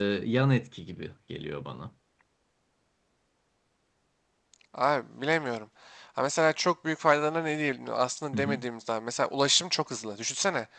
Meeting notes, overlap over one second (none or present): none